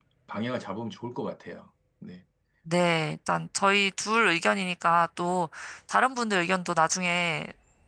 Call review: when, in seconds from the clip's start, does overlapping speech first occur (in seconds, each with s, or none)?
none